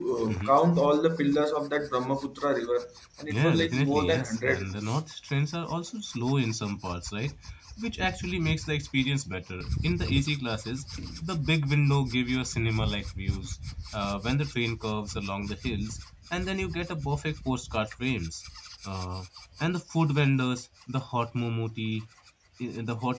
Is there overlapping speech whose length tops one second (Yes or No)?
Yes